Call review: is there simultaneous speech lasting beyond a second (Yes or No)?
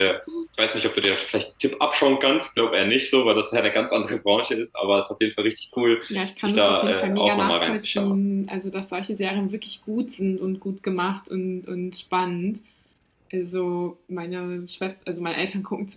Yes